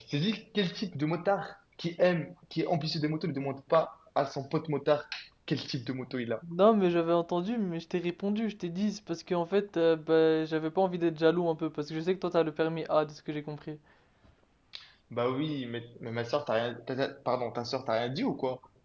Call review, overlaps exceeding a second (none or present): none